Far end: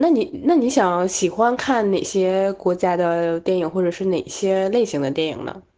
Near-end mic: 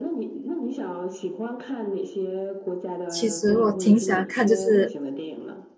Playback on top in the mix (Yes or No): No